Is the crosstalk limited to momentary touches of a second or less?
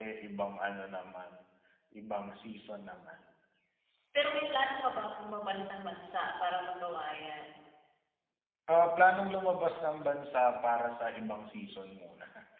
Yes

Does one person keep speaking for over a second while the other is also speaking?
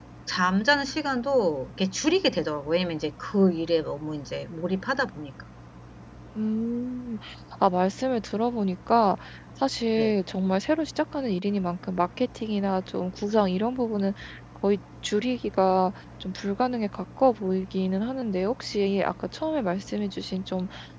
No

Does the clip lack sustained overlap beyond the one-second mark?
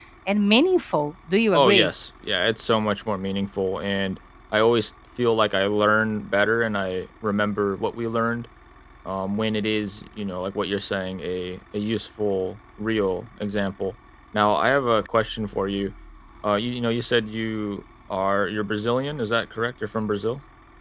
Yes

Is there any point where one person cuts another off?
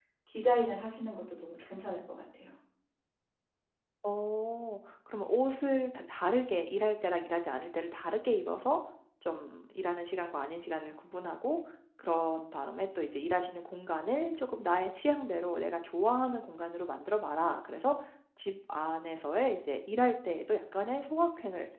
No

